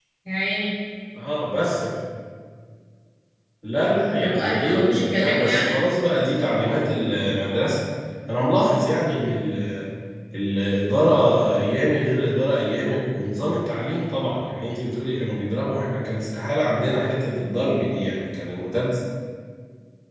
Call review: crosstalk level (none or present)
present